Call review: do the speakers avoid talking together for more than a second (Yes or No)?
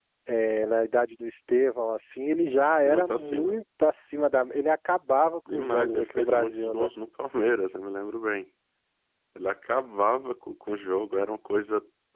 No